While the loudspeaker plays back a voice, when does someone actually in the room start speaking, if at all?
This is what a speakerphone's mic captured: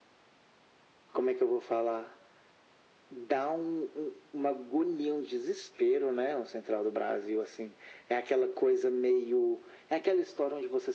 none

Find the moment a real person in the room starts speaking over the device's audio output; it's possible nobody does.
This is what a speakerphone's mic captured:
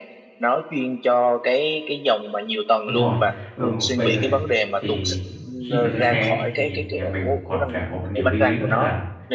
2.8 s

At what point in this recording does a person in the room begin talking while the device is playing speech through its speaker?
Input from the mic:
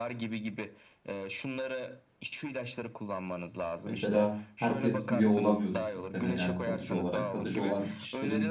3.9 s

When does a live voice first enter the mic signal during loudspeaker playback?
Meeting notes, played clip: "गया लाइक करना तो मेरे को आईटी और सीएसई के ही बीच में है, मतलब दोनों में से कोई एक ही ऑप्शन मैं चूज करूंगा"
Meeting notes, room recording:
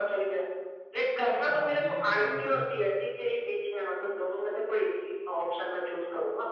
1.5 s

